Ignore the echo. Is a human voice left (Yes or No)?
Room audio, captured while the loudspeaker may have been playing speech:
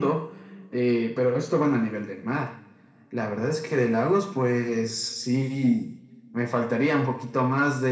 No